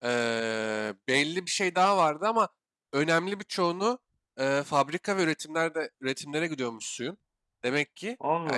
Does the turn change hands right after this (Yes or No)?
No